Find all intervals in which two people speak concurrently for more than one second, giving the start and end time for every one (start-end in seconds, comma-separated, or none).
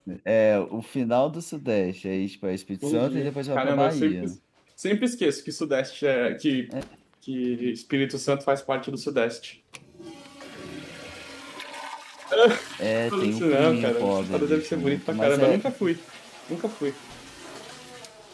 2.8-4.3, 13.1-15.6